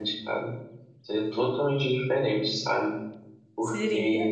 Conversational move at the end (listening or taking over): listening